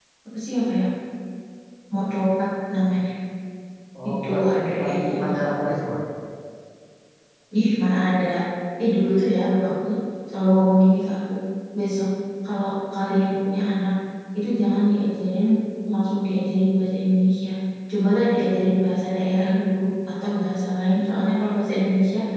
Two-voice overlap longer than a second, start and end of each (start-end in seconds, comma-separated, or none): 4.1-5.4